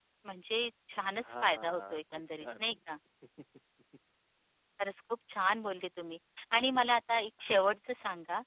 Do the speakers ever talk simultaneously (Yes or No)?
Yes